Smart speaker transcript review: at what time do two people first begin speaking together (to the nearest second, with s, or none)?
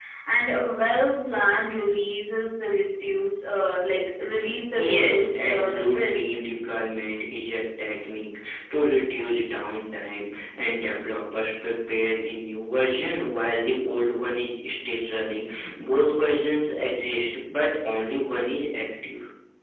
5 s